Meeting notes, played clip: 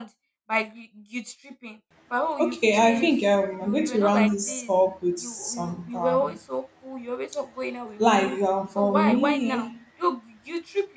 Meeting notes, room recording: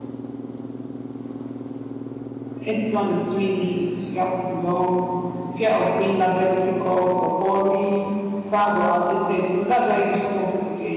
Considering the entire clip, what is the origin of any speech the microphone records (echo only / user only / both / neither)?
user only